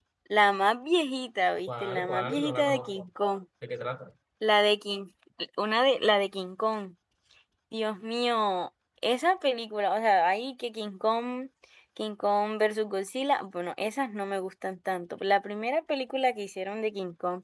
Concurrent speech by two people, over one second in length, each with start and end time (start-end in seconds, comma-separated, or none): 1.7-3.0